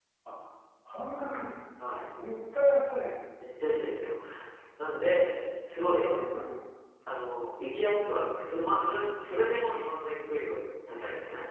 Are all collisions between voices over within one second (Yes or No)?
Yes